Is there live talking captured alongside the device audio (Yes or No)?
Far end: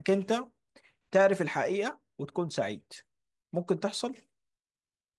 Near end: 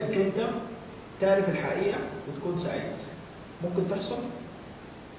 No